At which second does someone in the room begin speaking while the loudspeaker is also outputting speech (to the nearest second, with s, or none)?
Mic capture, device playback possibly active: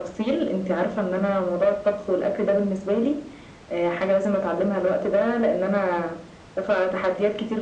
none